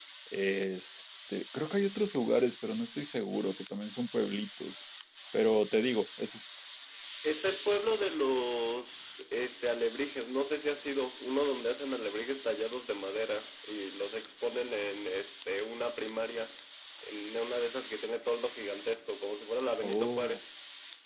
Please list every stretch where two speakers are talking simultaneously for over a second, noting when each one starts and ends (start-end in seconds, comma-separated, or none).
none